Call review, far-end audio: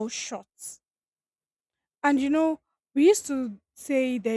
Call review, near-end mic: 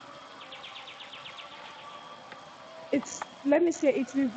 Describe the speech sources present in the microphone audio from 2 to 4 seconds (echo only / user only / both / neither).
user only